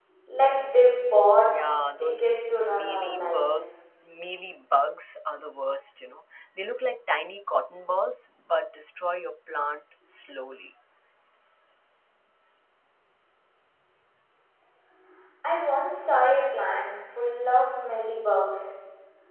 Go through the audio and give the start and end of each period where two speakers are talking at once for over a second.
2.0-3.7

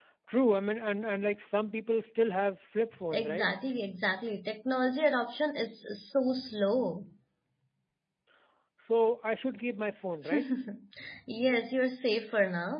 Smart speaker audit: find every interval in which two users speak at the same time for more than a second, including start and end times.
none

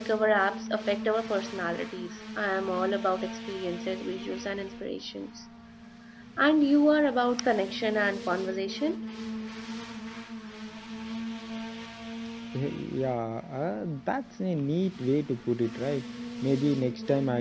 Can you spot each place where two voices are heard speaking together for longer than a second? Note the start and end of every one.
none

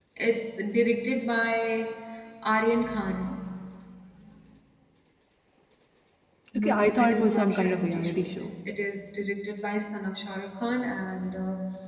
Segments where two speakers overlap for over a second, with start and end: 6.6-8.3

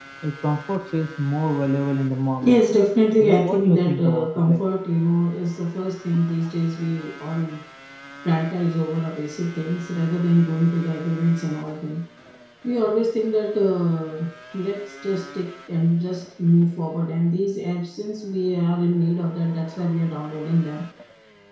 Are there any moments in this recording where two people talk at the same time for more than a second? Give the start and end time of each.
3.2-4.6

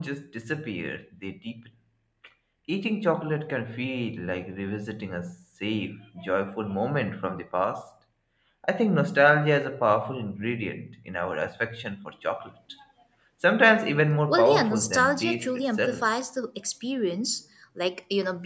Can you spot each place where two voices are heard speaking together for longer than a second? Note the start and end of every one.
14.3-16.0

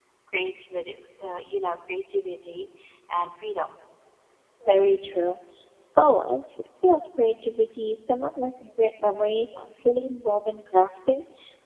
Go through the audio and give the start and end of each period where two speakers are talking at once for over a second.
none

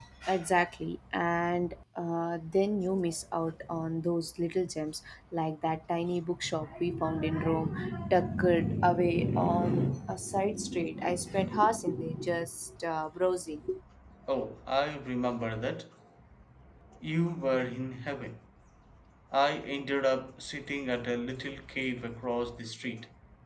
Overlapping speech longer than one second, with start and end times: none

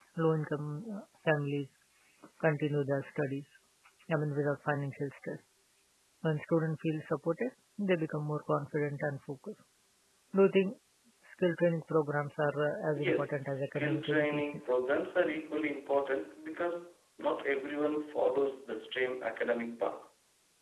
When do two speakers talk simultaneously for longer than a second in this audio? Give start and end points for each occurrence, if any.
12.9-14.6

